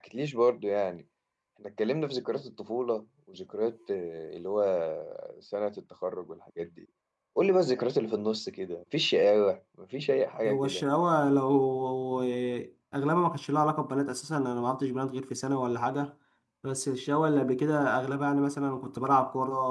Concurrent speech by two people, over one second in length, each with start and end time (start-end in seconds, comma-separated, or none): none